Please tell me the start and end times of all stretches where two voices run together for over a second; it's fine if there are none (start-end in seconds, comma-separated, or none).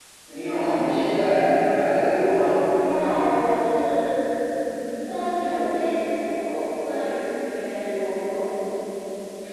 none